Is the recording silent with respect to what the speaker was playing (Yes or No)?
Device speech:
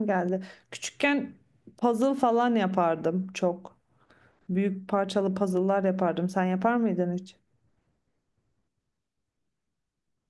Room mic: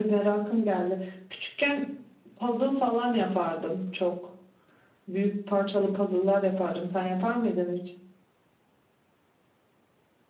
No